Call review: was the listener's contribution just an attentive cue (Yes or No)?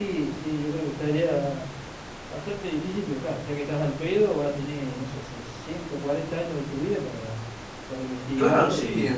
No